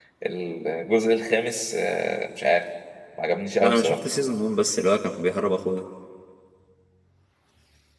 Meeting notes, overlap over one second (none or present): none